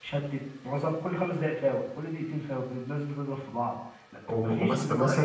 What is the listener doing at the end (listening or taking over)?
taking over